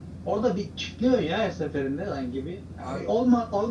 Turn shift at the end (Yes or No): No